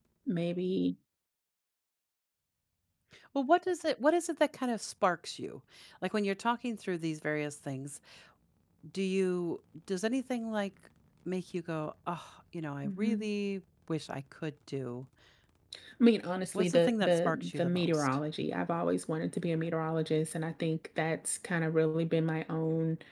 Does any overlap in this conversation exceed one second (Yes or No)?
Yes